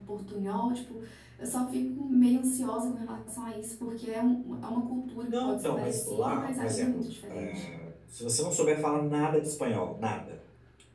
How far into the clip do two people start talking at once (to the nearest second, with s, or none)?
5 s